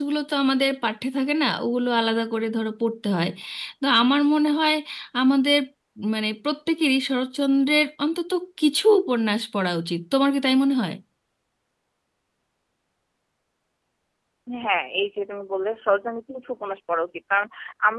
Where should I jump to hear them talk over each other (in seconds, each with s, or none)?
none